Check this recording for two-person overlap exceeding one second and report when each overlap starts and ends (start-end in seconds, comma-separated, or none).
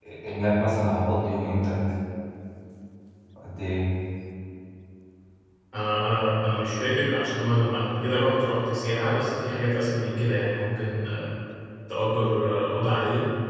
none